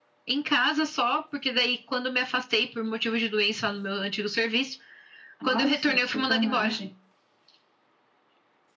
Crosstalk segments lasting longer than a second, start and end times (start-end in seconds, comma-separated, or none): 5.4-6.8